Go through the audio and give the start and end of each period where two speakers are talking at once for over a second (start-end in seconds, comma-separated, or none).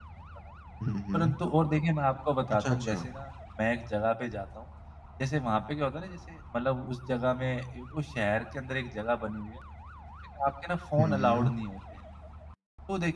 none